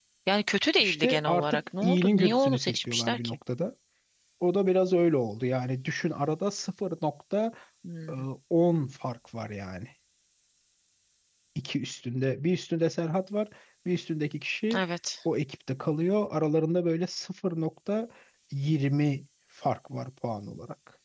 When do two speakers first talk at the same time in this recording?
0.8 s

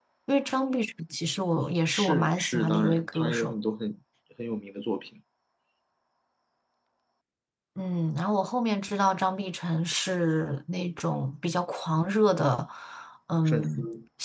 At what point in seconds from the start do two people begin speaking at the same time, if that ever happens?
1.9 s

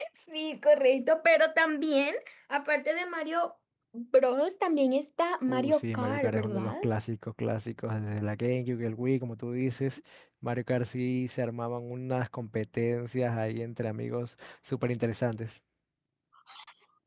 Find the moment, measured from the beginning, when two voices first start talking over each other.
5.5 s

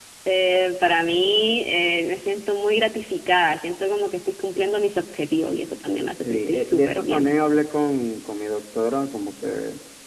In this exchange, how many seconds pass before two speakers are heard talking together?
6.1 s

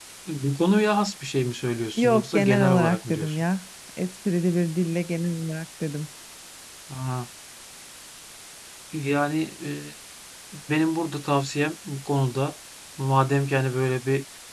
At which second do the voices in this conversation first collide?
2.0 s

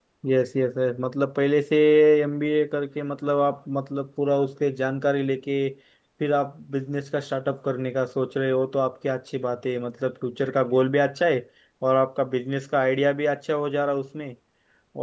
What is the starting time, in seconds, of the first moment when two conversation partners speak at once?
none

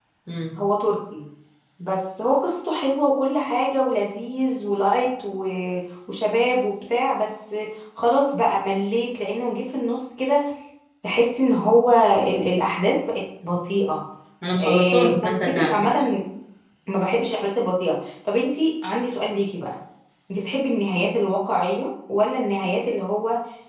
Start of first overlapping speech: 14.6 s

